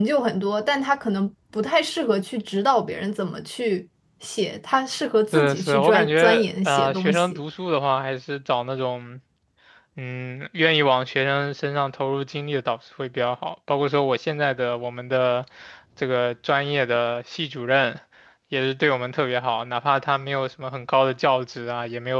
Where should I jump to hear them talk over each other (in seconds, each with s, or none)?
5.3 s